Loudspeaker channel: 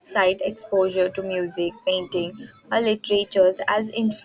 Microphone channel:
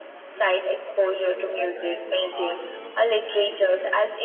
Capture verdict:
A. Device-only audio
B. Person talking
B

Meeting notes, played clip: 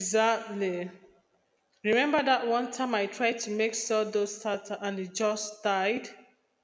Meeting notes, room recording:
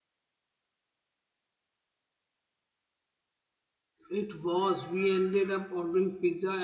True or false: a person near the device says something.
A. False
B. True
B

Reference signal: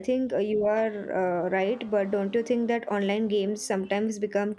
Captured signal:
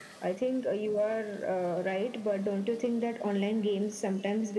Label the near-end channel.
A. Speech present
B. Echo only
B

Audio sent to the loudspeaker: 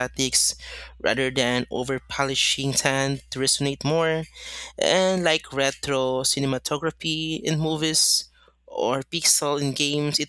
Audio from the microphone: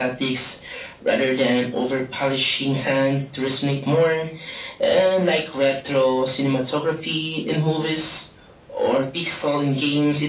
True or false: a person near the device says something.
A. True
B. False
B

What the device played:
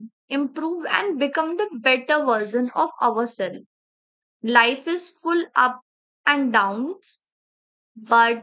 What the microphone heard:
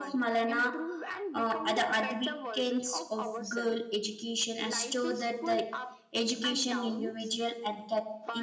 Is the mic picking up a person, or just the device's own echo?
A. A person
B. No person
A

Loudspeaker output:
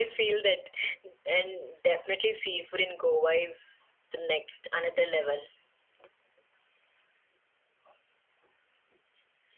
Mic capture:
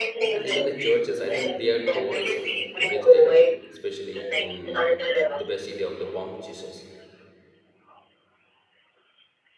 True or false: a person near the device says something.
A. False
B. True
B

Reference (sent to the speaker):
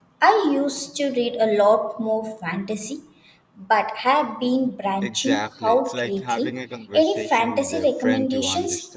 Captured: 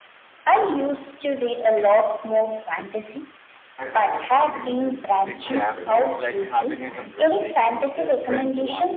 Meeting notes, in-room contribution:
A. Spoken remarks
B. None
A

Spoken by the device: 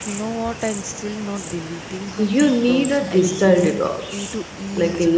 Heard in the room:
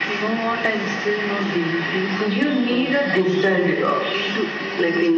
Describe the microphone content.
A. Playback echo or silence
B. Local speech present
A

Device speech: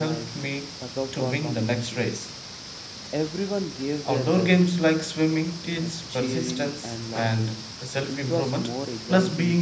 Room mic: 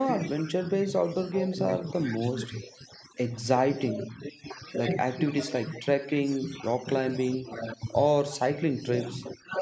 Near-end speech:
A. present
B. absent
A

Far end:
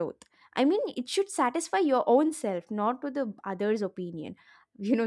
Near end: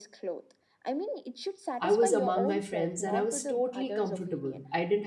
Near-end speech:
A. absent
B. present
B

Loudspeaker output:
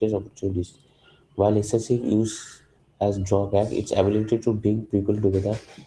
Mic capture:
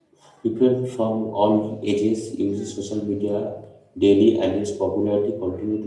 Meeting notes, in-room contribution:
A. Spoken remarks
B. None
A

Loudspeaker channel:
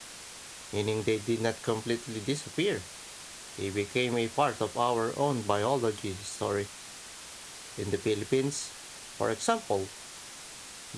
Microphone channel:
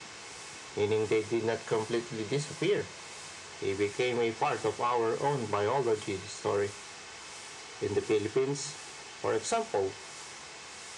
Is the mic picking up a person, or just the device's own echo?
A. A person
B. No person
B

